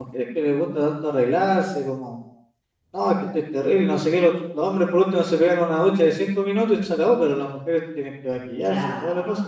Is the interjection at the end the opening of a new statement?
Yes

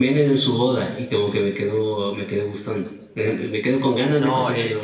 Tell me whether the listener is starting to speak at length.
Yes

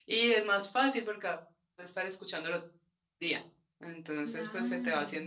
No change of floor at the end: Yes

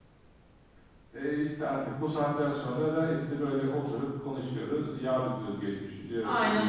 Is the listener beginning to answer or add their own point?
Yes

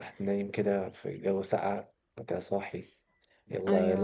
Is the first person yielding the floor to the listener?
No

